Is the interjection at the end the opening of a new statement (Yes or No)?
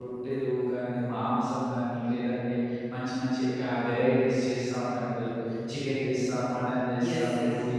No